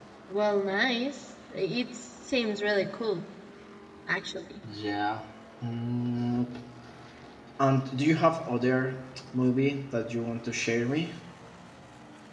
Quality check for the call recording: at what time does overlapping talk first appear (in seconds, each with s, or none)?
none